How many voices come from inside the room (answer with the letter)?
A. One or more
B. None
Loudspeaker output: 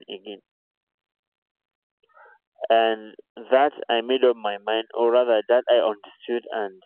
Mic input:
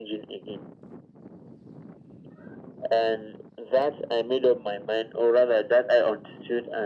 B